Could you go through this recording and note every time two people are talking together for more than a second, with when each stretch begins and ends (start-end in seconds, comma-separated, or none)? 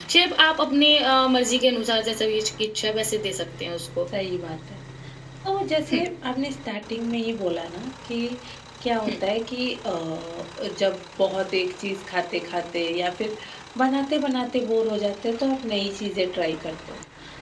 none